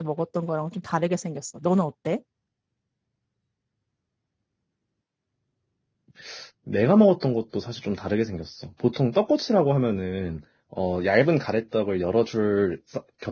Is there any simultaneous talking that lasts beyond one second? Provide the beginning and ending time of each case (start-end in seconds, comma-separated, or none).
none